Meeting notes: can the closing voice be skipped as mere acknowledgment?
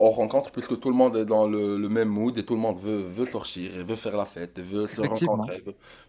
Yes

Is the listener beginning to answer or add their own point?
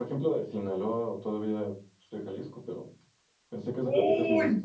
Yes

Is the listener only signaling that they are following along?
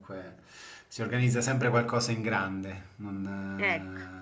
Yes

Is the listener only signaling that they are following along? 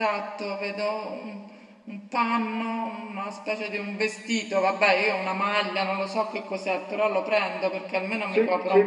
Yes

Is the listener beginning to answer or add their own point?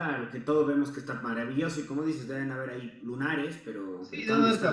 Yes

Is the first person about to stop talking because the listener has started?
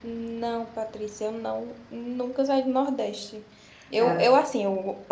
No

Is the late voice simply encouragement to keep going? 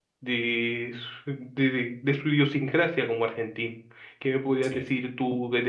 Yes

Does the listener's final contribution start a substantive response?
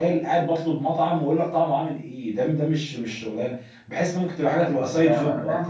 Yes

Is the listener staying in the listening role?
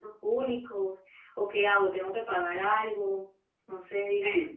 No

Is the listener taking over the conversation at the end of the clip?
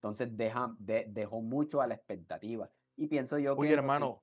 Yes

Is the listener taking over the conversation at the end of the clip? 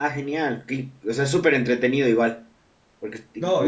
Yes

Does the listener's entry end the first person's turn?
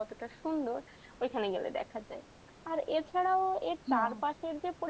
No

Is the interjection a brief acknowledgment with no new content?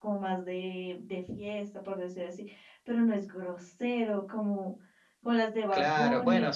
No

